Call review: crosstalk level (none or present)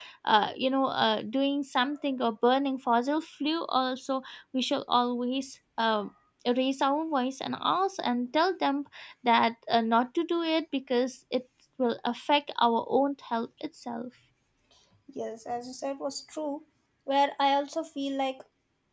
none